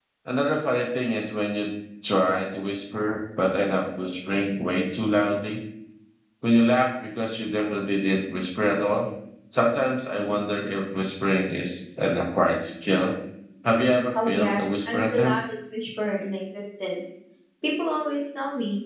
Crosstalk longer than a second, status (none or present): present